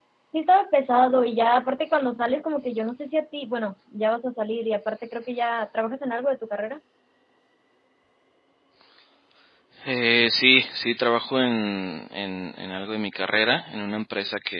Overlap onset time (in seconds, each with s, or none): none